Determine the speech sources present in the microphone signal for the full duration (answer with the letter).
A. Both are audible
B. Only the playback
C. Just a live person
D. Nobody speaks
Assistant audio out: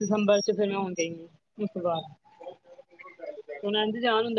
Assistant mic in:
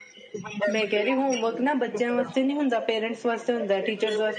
A